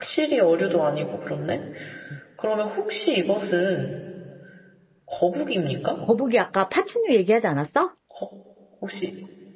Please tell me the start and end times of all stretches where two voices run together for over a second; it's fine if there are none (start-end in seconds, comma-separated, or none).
none